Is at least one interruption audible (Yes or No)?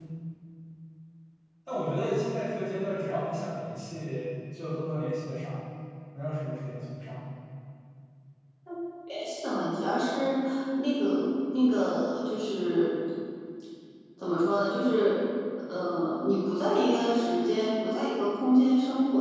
No